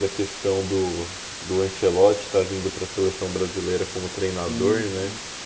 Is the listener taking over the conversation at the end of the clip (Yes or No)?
No